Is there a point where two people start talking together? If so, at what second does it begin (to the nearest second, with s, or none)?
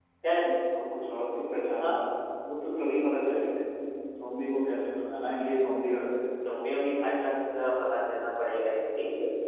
none